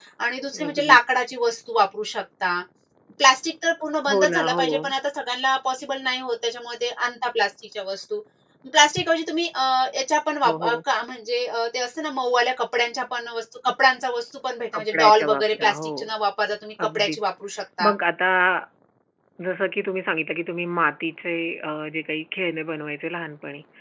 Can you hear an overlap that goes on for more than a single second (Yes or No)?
Yes